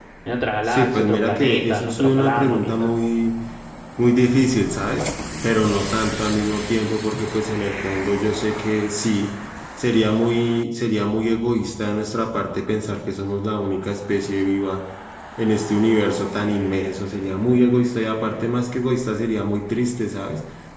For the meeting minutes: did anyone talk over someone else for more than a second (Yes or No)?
Yes